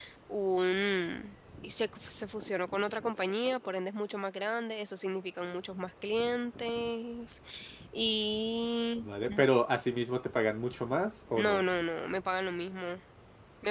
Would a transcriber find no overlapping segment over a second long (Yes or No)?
Yes